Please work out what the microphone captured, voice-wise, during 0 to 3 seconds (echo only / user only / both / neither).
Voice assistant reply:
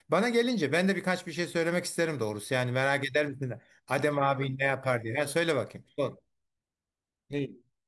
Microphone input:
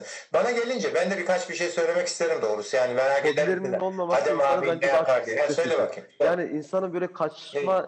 echo only